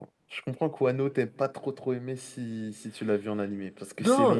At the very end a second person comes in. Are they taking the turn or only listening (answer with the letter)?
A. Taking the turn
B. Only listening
A